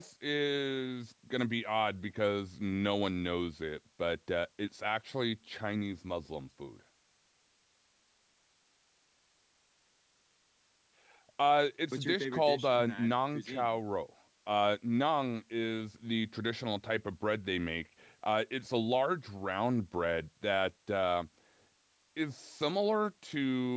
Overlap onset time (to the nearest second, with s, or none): 12 s